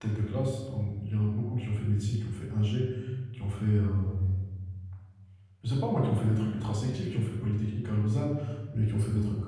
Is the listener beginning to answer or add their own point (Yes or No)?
No